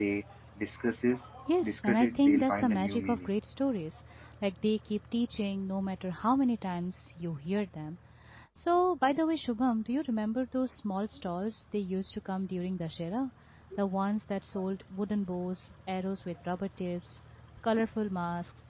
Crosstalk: present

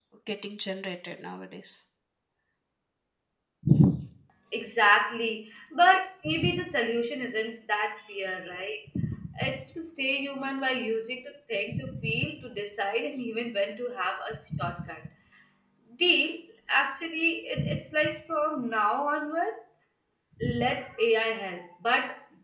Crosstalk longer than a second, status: none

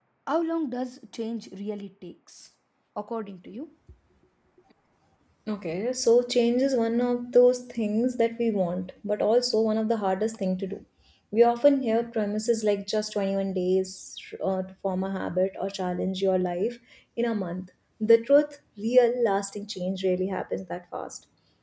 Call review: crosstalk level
none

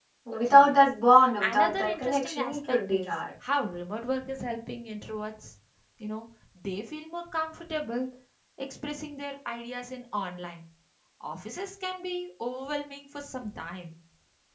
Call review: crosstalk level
present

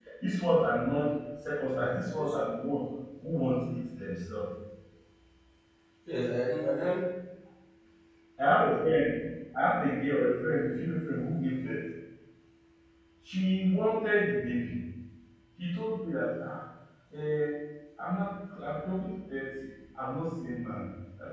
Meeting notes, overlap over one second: none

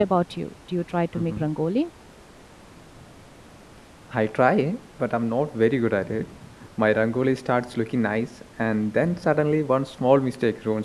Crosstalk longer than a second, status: none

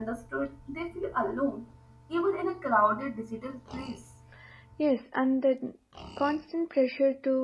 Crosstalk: none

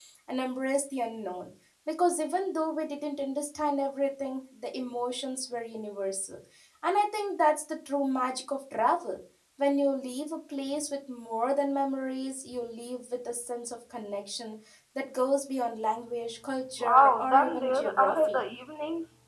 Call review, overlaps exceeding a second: present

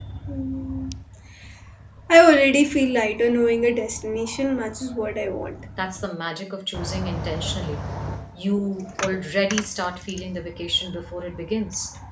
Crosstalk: none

